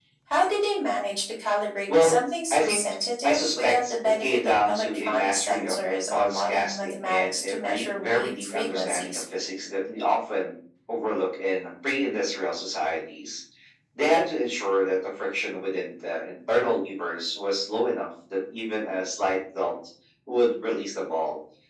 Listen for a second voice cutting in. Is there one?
Yes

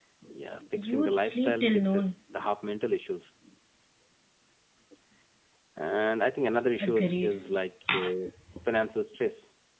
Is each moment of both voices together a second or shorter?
No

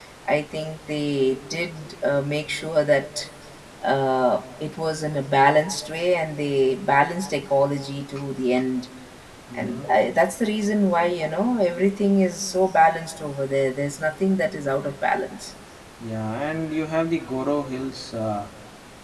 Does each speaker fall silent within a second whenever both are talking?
Yes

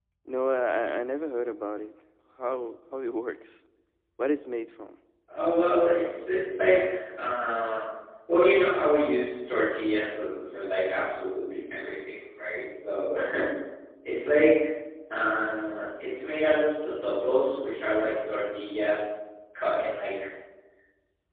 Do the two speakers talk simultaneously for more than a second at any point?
No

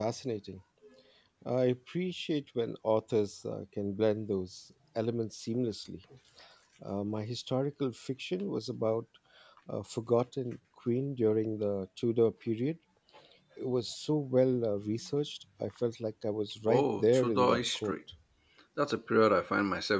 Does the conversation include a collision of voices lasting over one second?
Yes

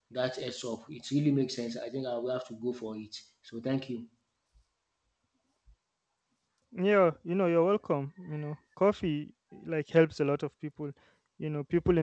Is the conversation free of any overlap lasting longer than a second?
Yes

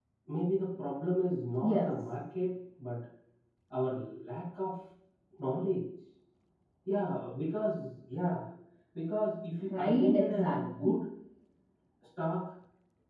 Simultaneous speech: Yes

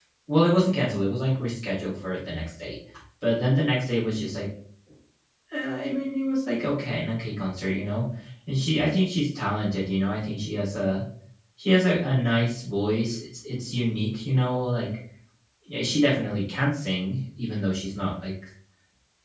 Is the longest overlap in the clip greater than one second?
No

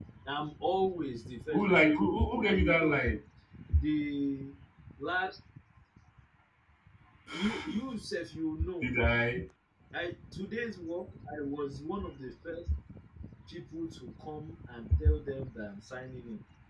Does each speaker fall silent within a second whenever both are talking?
No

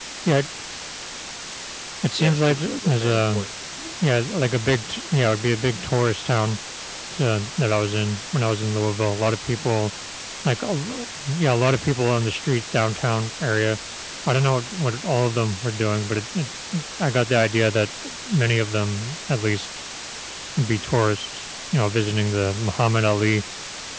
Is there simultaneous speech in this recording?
Yes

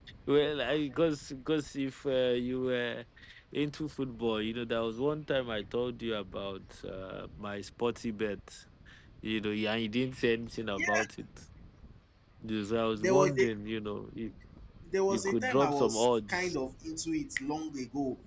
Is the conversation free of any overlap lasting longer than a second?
No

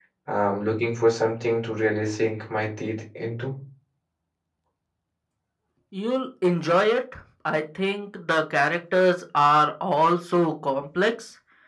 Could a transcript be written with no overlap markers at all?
Yes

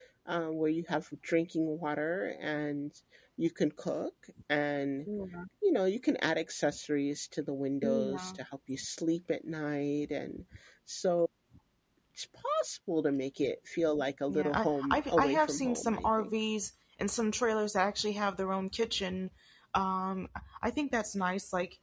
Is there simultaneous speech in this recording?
Yes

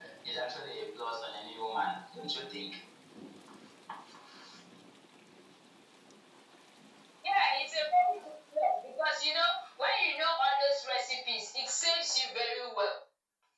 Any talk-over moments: No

